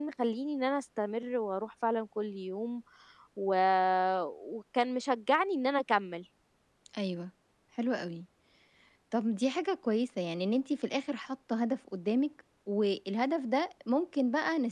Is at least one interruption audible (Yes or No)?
No